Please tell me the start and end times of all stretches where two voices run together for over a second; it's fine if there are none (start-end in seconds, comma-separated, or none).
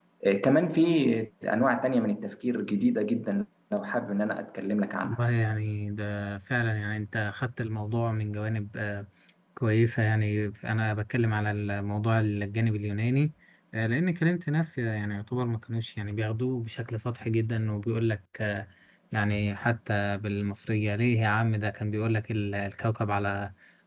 none